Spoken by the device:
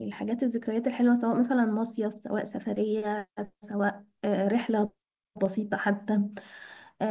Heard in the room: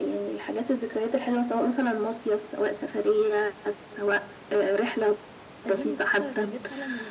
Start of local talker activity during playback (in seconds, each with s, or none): 5.6 s